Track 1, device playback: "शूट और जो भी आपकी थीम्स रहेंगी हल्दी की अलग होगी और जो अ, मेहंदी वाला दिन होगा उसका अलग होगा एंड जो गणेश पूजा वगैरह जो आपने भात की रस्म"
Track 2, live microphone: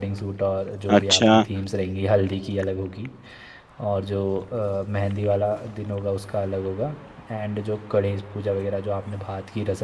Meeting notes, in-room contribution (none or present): present